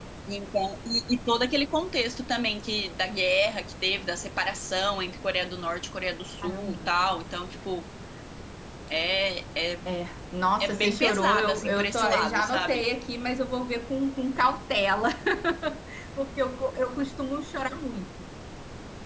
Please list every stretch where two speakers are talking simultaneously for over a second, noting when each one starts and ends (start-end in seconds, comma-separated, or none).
10.6-12.8